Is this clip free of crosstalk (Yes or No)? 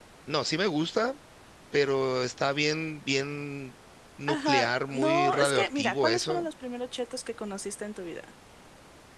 No